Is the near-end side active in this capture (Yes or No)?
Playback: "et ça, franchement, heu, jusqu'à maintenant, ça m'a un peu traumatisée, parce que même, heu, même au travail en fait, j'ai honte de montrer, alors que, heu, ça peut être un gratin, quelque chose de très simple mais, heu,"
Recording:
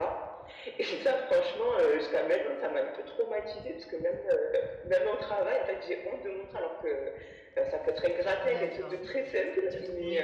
Yes